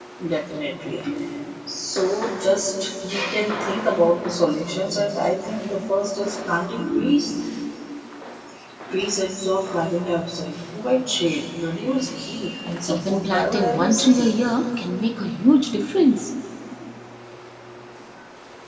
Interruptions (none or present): present